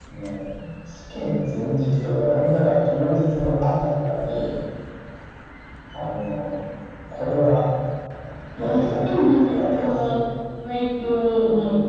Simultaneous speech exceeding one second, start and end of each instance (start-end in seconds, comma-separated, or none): 8.6-10.1